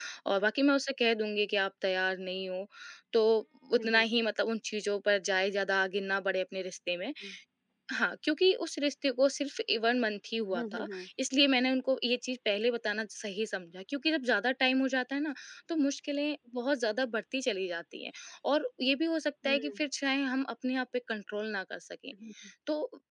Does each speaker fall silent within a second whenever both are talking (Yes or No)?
Yes